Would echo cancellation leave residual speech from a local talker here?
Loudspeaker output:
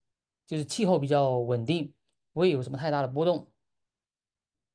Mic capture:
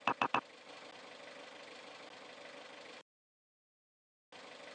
No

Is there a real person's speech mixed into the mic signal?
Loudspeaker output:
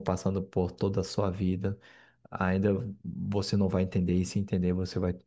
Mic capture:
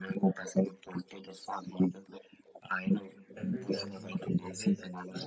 Yes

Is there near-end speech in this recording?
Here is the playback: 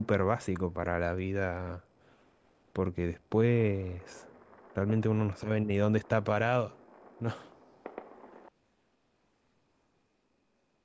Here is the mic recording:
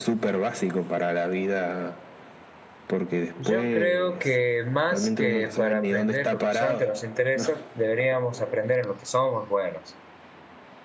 Yes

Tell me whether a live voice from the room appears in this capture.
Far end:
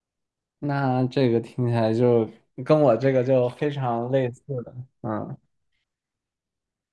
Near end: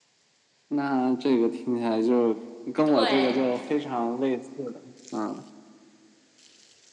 Yes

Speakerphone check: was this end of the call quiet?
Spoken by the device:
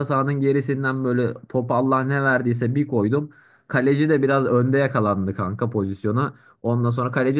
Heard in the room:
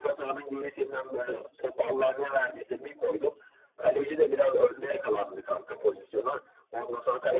Yes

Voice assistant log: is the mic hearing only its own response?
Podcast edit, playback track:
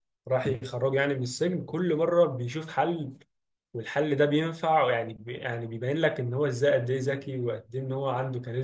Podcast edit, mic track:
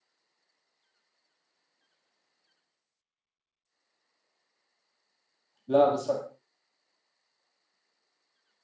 No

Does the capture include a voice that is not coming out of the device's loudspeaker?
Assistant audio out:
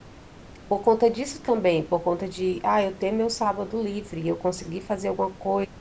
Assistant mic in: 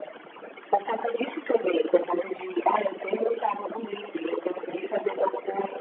No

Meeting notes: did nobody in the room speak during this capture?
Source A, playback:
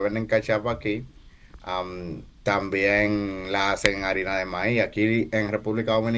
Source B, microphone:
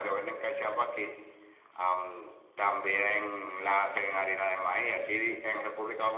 Yes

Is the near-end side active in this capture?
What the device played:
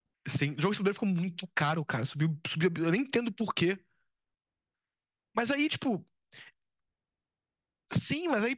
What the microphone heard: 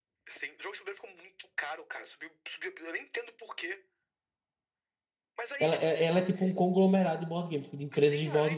Yes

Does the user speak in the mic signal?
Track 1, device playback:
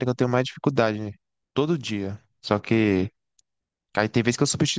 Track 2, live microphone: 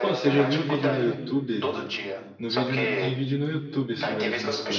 Yes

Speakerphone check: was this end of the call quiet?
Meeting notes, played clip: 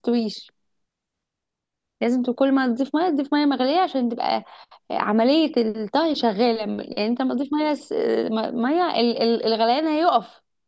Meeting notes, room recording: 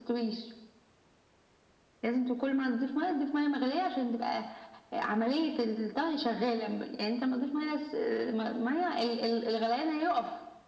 Yes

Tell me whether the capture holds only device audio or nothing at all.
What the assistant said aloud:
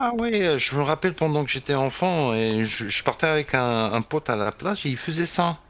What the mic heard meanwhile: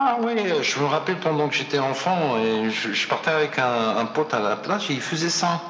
Yes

